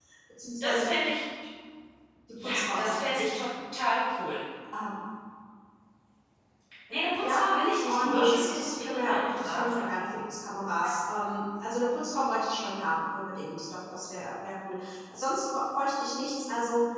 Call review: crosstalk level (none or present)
present